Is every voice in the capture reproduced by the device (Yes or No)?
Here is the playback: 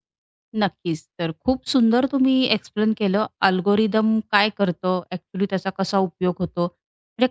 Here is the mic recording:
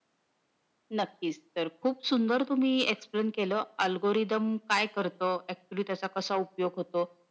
Yes